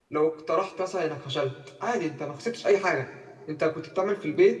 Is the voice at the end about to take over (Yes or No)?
No